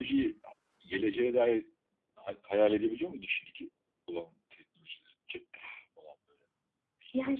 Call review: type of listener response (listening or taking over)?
taking over